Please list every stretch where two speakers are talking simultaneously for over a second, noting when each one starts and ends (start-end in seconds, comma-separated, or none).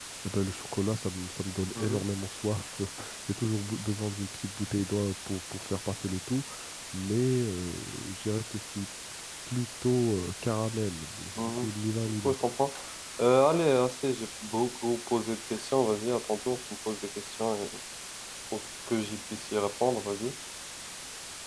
none